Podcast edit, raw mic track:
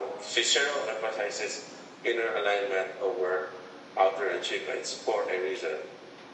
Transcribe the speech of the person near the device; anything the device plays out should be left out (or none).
none